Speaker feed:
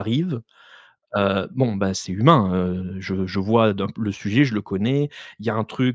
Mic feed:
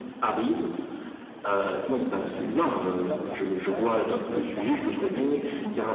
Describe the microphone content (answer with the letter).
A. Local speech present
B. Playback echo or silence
A